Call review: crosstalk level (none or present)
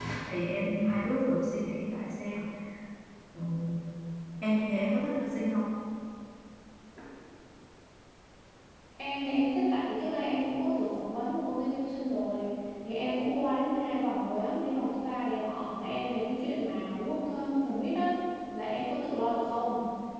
none